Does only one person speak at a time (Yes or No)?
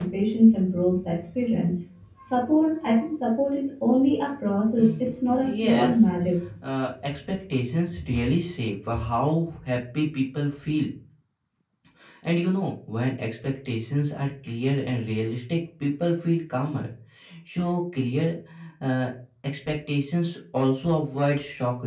No